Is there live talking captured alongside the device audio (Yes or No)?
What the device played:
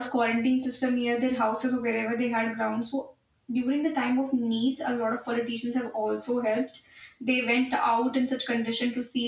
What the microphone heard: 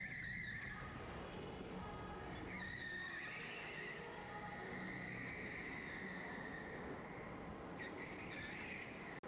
No